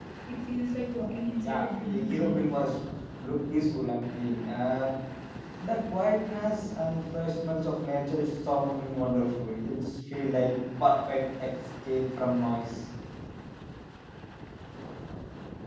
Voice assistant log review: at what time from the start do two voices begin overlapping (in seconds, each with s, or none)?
1.0 s